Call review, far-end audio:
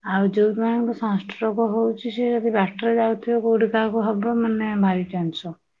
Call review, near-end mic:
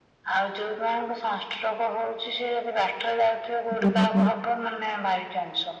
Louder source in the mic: user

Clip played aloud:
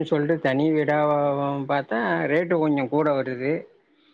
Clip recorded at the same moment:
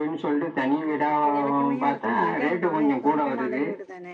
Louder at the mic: echo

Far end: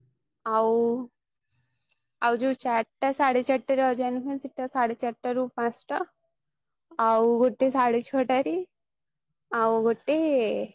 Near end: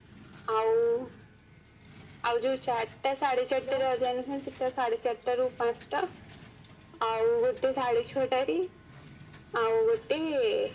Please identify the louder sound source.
echo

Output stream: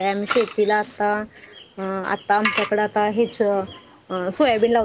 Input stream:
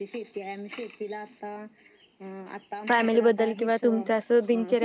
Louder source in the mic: user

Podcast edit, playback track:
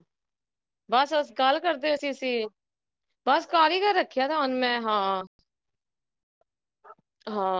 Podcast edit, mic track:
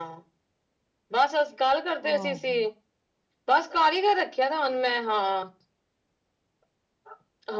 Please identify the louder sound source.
echo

